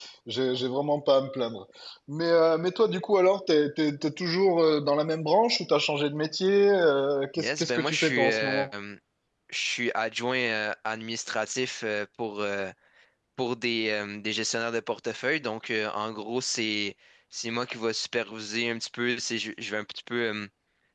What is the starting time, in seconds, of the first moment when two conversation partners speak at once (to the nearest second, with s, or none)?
7 s